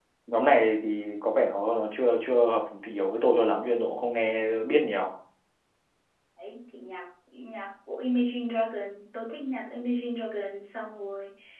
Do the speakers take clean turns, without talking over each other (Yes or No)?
Yes